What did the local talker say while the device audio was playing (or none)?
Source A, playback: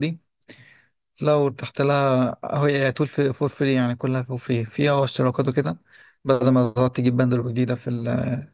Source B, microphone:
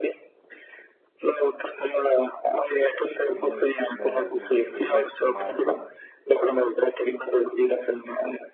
مم. ب- مش بيبكسل معاك آه.